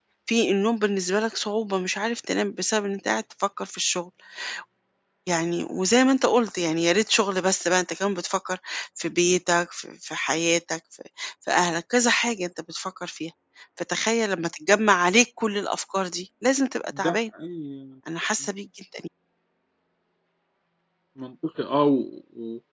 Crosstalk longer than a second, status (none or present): none